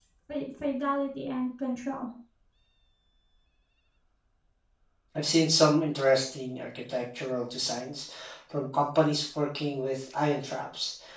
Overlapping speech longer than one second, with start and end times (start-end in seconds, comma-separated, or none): none